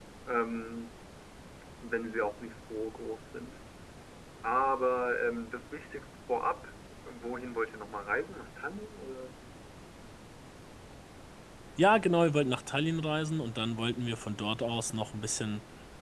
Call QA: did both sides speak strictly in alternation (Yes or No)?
Yes